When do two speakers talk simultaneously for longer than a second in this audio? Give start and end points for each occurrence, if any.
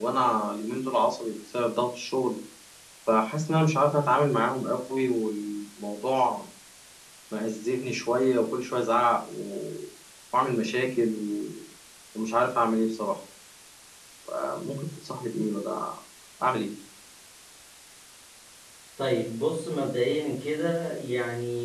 none

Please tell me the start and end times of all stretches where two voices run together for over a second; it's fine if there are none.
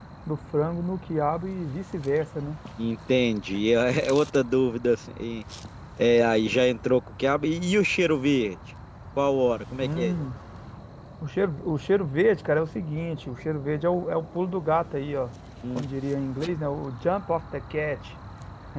none

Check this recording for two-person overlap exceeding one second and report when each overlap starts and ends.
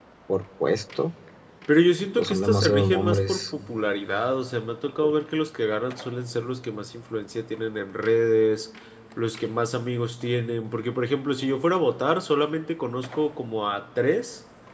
2.0-3.5

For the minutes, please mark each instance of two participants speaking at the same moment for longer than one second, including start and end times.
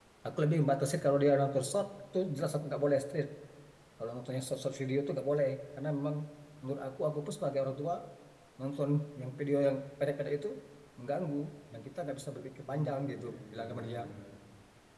12.6-14.0

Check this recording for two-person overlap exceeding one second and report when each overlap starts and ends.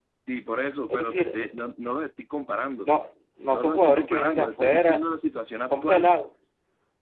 3.5-5.0

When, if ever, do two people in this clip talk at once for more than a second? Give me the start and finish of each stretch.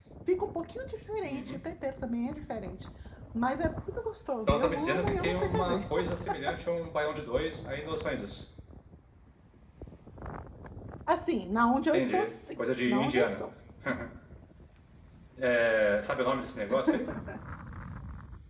4.5-5.8, 11.9-13.4

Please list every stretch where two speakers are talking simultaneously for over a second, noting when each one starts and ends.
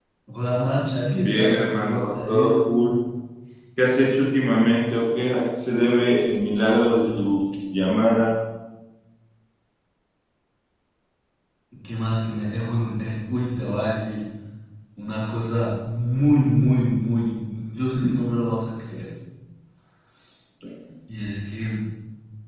1.1-2.5

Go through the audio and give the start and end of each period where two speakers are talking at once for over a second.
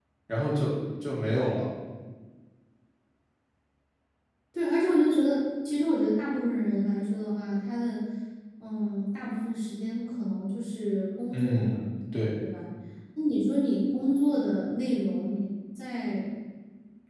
none

